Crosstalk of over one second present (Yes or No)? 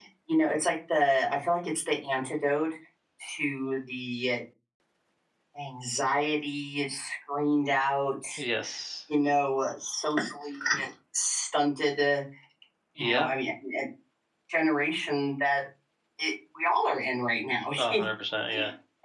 No